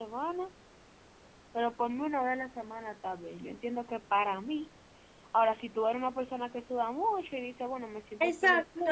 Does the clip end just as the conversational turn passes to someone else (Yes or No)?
Yes